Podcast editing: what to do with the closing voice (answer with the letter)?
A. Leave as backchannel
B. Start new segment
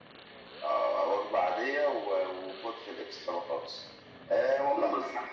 A